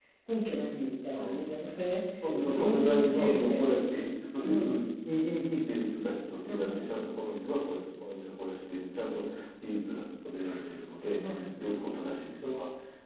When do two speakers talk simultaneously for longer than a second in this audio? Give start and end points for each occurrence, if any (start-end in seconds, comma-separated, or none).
2.4-4.0